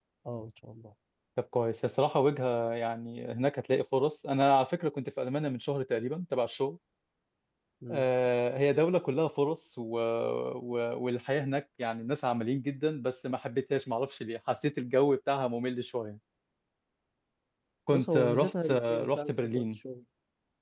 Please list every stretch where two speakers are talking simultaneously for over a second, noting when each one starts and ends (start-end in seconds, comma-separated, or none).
17.9-19.8